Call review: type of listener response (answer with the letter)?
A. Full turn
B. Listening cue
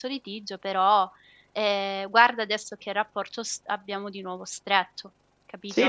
A